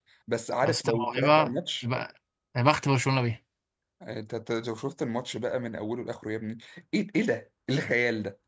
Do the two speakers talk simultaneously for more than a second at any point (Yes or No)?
Yes